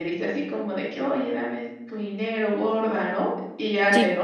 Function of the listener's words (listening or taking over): listening